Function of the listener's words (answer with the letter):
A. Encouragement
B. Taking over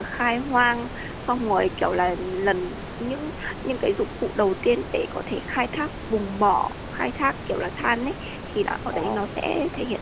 A